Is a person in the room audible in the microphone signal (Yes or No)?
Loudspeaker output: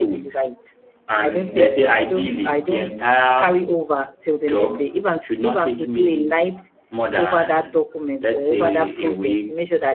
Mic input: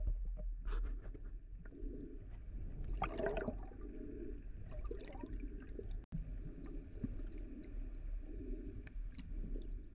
No